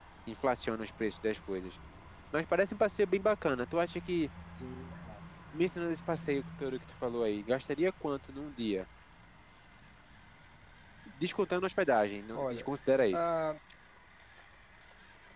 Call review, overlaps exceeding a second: none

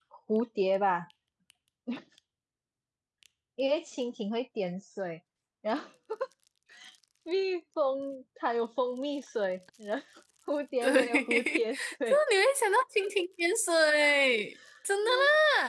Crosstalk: present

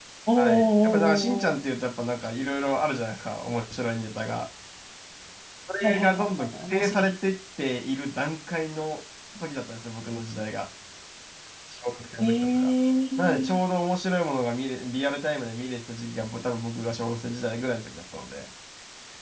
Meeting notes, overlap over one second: present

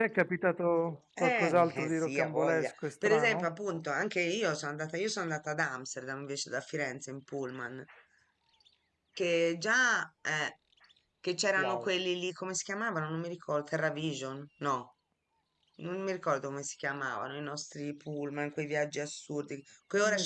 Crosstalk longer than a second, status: present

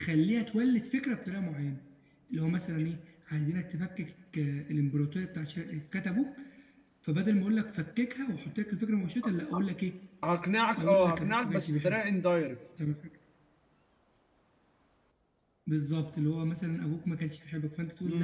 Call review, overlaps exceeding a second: present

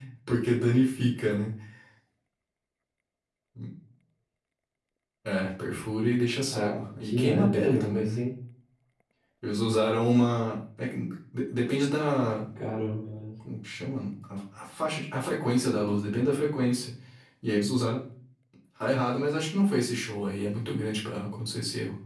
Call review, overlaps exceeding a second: present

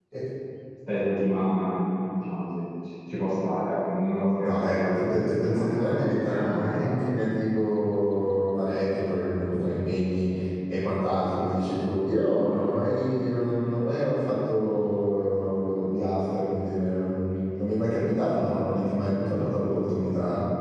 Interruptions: present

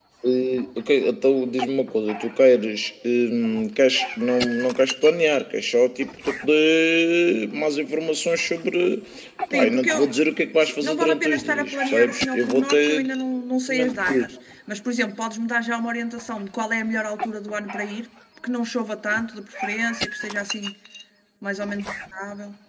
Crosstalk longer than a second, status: present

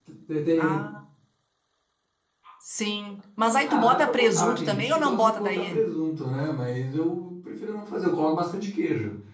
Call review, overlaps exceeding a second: present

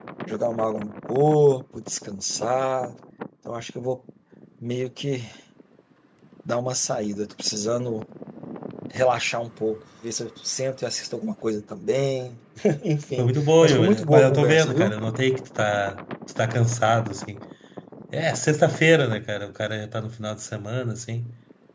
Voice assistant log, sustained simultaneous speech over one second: present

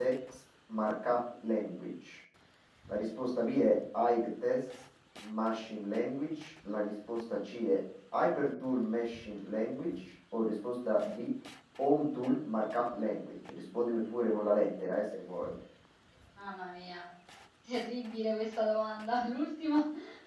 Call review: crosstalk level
none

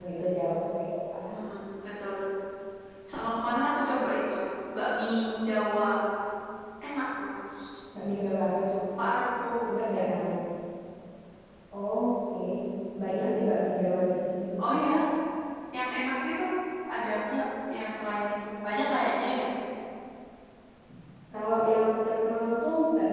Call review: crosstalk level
none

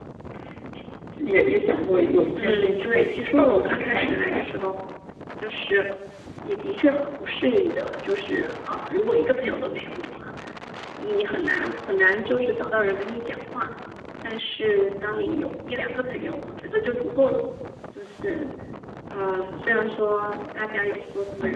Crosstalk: present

